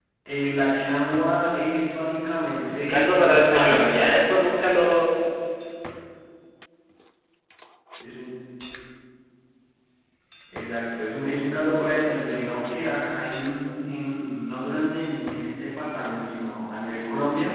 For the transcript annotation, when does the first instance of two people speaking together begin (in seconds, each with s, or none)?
2.6 s